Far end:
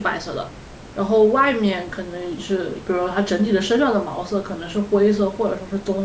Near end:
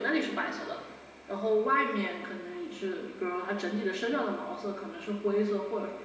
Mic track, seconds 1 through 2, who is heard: echo only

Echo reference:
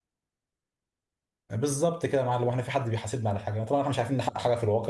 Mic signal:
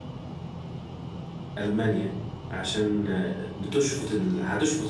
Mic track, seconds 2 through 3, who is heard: user only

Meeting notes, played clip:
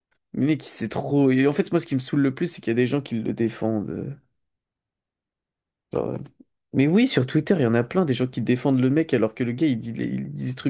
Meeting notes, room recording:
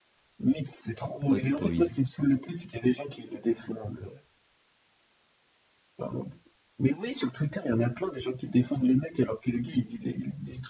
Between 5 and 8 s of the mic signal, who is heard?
echo only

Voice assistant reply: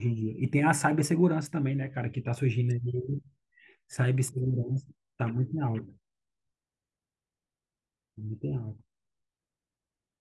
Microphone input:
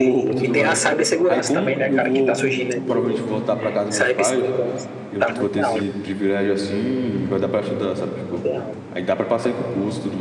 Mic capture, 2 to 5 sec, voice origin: both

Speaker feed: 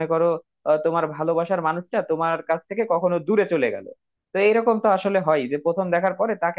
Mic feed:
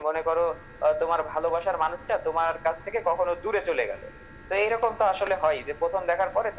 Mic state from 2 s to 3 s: echo only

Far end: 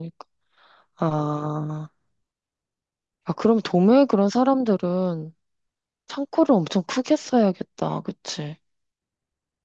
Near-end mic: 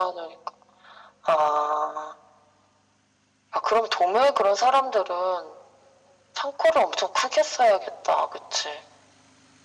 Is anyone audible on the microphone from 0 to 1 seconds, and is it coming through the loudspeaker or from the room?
echo only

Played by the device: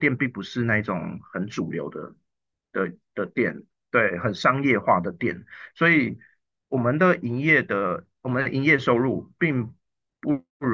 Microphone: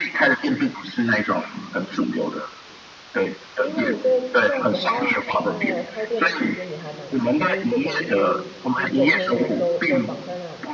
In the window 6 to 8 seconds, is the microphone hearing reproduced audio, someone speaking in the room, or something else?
both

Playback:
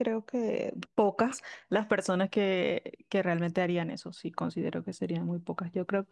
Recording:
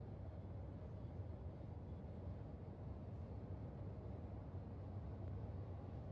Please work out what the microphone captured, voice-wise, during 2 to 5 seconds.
neither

